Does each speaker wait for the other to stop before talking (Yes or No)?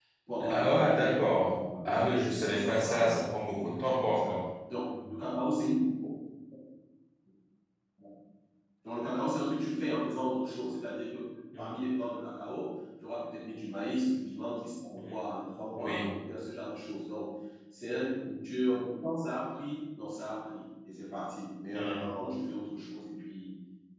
No